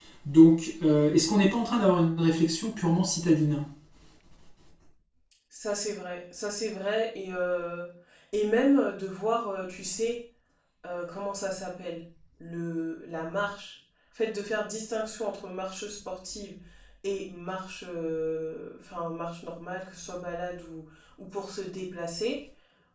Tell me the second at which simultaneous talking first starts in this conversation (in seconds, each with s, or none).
none